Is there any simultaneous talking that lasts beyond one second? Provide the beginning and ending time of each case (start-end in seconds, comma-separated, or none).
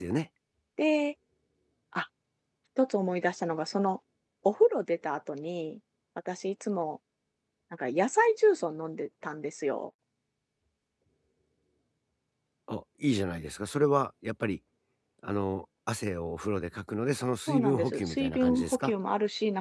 17.5-18.9